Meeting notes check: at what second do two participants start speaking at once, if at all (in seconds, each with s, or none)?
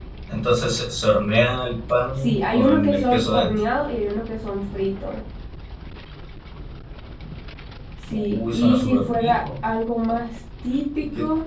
2.2 s